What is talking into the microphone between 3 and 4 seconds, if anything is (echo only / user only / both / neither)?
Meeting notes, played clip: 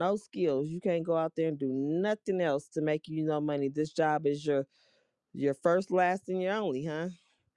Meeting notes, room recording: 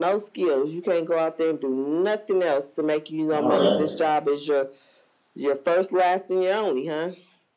both